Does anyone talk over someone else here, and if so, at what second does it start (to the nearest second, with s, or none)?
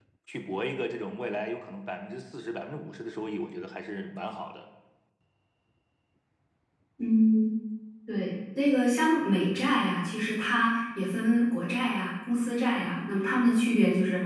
none